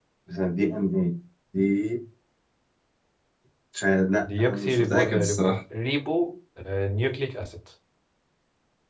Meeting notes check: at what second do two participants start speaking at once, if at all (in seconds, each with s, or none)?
4.2 s